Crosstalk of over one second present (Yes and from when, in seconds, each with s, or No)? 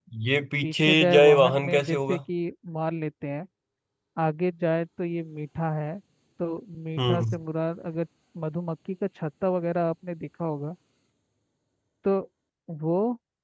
Yes, from 0.6 s